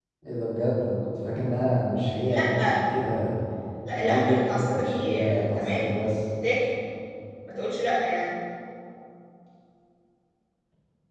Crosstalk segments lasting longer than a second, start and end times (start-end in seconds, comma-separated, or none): 3.9-5.9